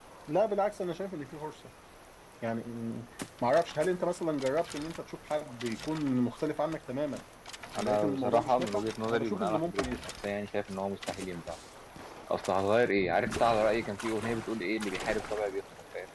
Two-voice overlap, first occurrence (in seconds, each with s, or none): 7.8 s